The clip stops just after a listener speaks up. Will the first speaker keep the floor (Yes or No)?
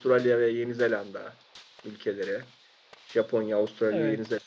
Yes